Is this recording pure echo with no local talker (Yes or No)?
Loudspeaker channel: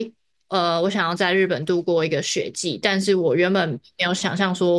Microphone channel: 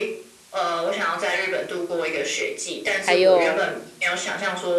No